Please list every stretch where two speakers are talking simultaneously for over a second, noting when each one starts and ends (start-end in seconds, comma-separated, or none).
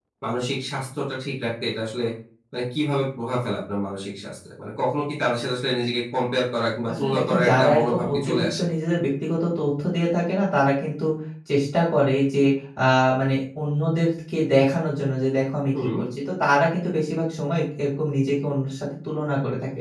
7.0-8.7